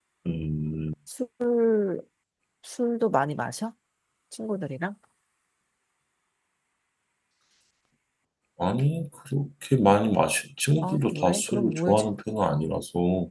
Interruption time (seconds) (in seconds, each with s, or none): 10.8 s